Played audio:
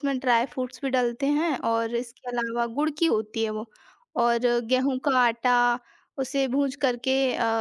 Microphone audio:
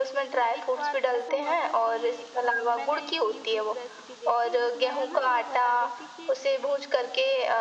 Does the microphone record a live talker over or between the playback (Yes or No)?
Yes